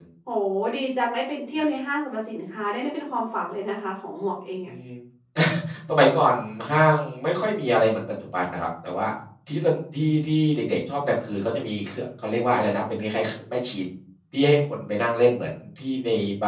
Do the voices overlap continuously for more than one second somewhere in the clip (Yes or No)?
No